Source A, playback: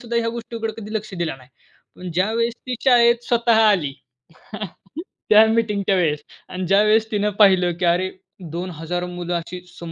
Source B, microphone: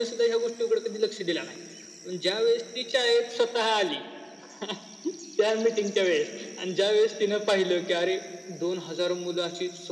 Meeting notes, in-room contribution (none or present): none